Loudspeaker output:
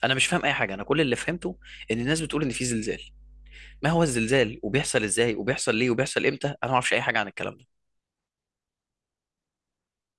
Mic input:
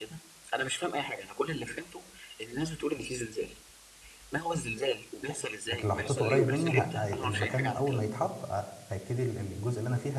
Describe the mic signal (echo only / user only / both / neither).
both